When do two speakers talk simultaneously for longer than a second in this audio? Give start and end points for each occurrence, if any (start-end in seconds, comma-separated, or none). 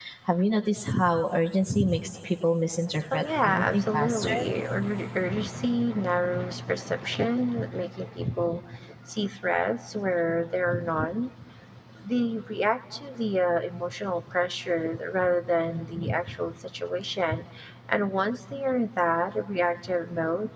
3.1-4.4